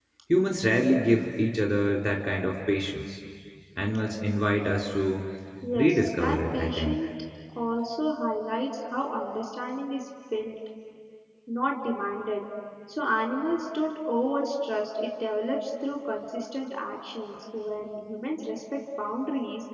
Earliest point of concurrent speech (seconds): 6 s

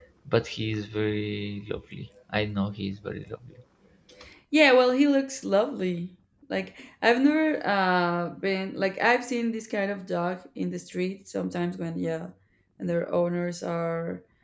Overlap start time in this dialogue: none

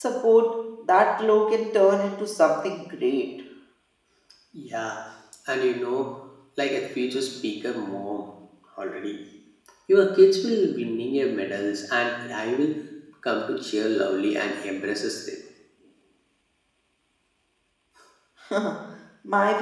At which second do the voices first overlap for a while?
none

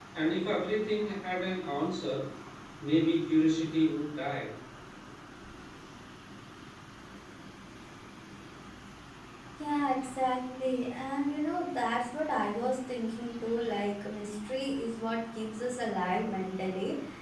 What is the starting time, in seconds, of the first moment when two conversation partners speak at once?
none

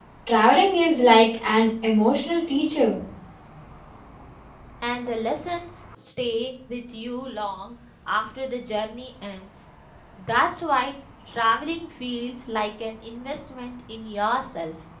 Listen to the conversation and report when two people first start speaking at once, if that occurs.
none

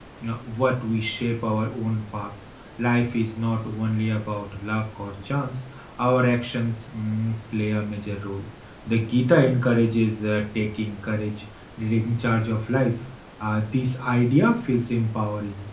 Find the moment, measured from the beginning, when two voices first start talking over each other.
none

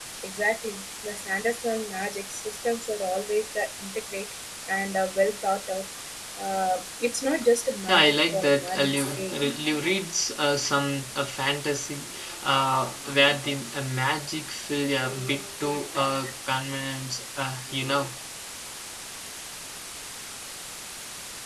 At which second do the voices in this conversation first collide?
8 s

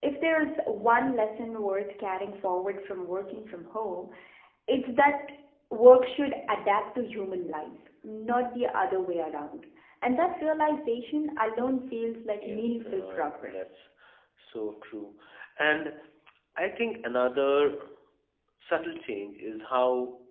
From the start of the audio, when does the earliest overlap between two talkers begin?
12 s

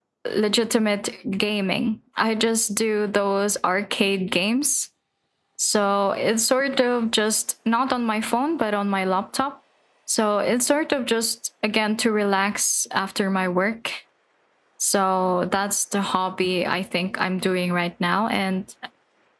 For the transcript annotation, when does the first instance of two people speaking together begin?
none

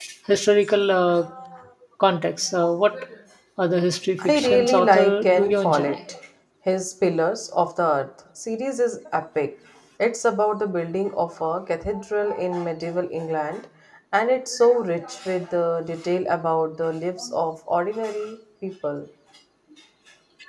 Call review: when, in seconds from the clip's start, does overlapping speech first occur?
4 s

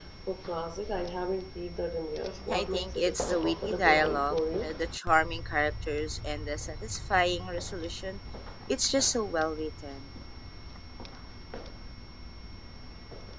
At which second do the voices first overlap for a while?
2 s

